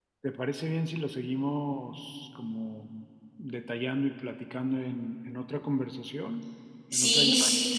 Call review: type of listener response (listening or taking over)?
taking over